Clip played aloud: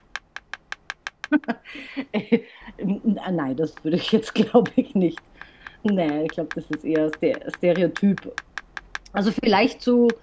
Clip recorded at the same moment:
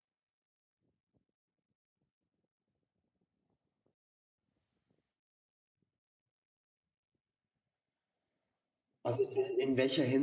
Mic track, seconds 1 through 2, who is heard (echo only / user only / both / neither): neither